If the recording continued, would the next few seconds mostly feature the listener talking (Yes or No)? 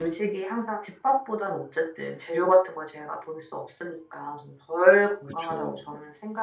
No